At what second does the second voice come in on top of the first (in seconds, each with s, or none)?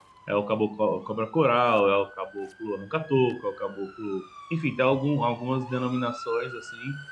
none